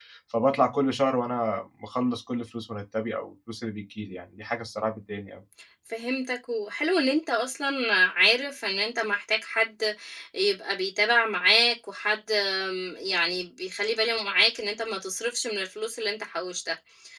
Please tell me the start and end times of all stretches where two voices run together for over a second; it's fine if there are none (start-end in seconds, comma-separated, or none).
none